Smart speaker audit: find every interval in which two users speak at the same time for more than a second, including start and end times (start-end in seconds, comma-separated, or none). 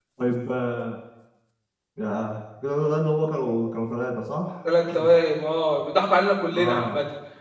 none